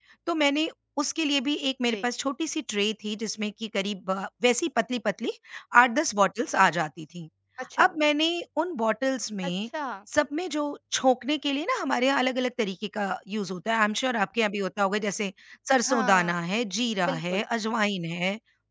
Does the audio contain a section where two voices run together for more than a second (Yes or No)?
No